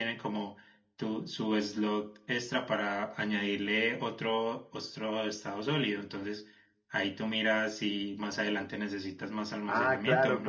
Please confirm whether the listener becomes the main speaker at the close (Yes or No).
Yes